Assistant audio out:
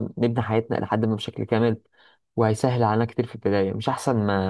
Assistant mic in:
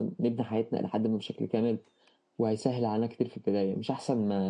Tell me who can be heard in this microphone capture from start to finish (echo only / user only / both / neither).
echo only